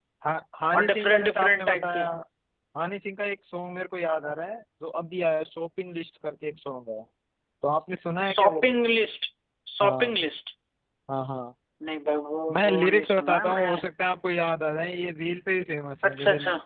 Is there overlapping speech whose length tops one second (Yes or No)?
Yes